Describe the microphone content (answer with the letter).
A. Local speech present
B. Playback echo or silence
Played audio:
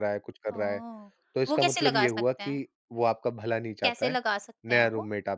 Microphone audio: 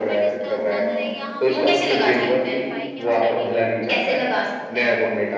A